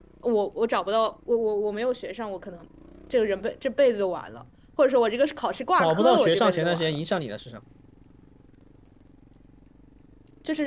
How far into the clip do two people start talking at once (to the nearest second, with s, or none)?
6 s